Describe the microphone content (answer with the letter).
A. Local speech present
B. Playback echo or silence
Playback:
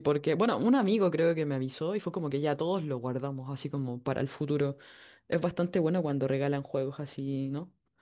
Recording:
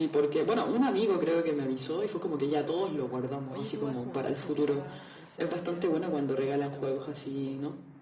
A